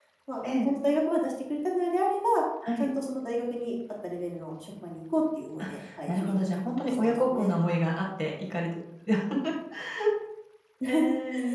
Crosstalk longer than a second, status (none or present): present